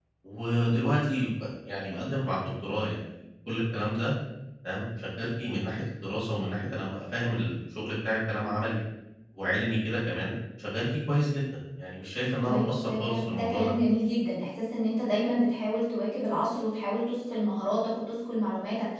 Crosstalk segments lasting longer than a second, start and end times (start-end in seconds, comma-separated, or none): 12.5-13.7